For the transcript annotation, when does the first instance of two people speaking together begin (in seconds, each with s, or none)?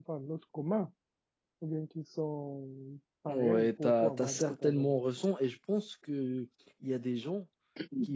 3.3 s